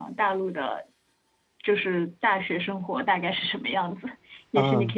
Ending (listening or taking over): taking over